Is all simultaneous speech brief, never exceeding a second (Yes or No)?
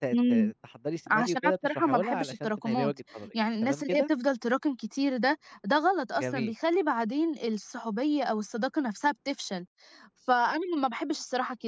No